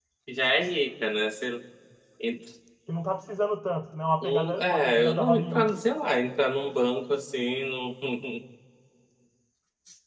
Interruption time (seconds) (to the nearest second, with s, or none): 4 s